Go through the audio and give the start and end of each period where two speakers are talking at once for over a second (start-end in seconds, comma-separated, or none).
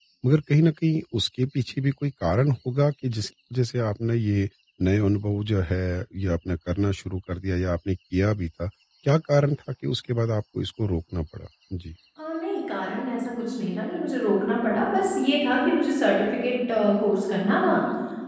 none